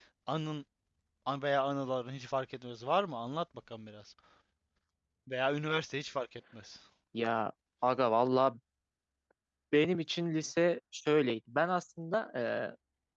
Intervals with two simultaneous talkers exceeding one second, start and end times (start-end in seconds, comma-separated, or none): none